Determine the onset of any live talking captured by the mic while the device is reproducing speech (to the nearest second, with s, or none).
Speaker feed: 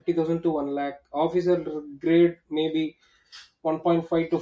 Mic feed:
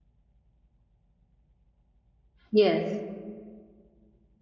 3 s